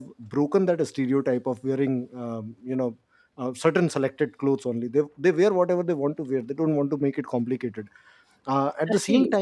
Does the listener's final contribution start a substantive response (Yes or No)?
No